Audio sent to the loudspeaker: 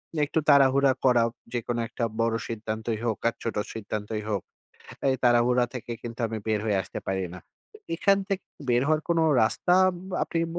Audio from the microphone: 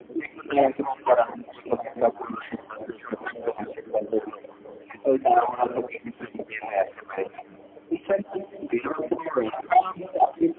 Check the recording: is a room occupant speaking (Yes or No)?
No